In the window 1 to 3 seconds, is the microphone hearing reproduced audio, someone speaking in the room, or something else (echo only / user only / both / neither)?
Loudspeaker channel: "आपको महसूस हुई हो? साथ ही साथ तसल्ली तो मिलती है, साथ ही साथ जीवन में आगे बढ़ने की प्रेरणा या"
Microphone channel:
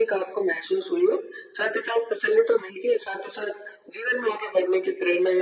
echo only